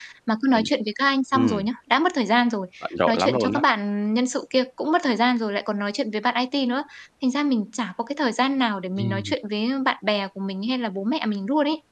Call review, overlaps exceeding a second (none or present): none